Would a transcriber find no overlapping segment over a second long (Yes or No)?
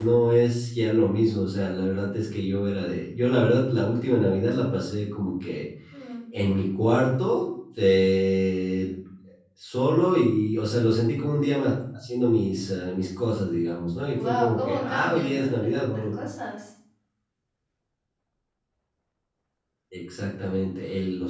No